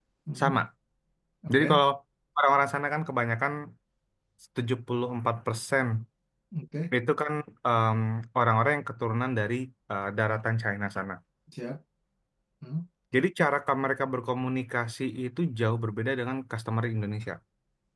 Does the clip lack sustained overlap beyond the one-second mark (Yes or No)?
Yes